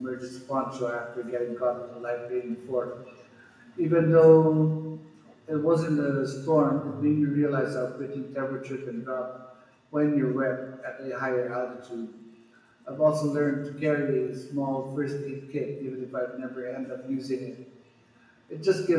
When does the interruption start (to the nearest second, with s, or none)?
none